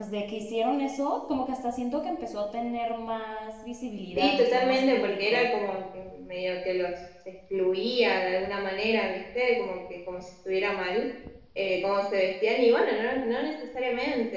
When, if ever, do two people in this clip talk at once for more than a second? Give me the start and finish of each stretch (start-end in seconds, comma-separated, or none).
4.2-5.5